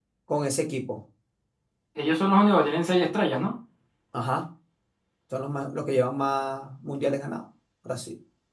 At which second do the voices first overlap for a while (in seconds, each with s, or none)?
none